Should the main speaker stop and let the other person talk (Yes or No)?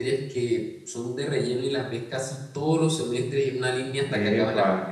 Yes